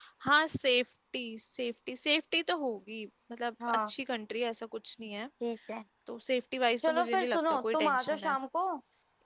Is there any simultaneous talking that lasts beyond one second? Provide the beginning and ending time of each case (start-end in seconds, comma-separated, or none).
6.8-8.3